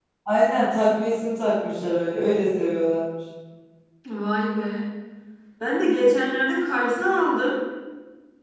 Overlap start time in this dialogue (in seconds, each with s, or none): none